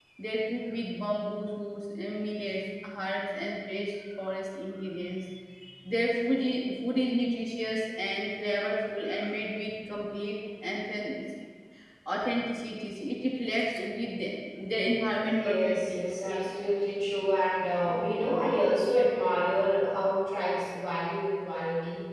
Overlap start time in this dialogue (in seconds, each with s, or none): 15.2 s